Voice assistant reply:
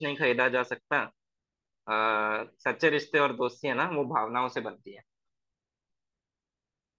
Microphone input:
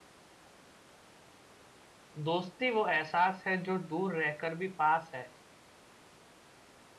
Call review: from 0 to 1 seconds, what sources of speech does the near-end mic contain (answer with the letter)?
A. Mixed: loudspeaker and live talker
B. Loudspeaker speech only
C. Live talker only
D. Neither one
D